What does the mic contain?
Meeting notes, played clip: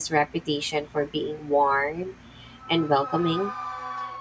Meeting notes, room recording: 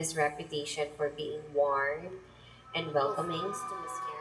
both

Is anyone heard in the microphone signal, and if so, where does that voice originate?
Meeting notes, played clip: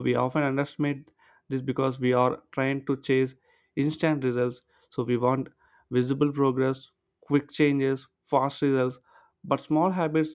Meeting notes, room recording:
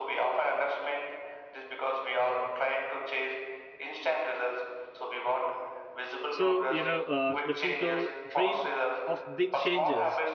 both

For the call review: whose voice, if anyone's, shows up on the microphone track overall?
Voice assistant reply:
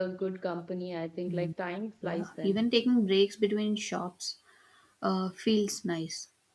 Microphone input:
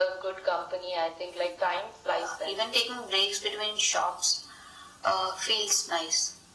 echo only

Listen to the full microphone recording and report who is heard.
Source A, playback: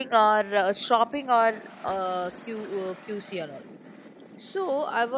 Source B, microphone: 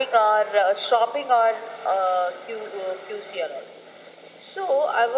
echo only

